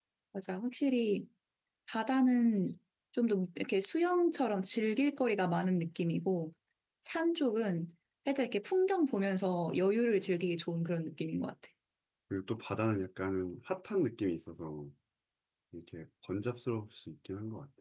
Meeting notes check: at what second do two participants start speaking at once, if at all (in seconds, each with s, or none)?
none